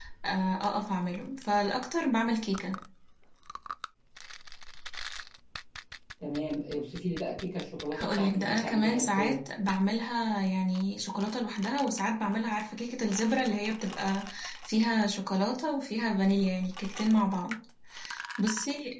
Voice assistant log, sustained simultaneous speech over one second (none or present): present